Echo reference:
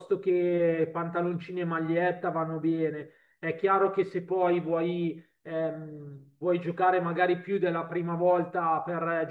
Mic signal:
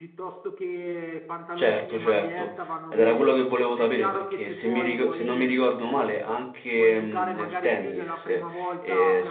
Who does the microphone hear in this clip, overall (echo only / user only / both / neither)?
both